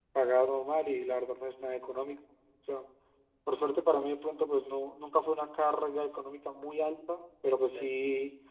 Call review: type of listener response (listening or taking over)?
listening